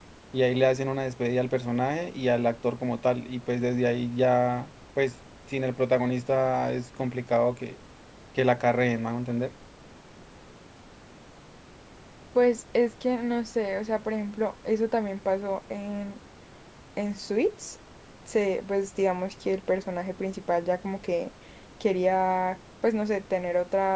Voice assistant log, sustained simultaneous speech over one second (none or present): none